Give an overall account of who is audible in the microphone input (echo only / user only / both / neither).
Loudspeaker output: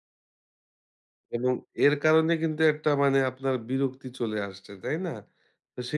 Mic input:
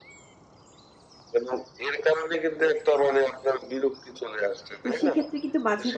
both